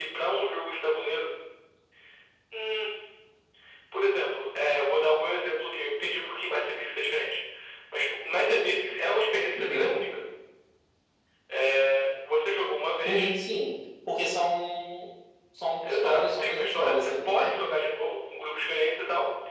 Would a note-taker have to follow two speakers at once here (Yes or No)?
Yes